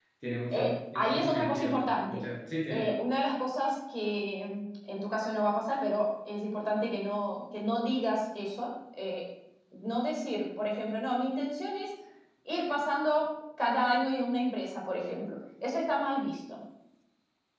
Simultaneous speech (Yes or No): Yes